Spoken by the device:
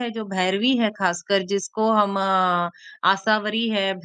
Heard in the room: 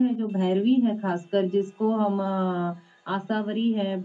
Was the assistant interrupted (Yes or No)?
No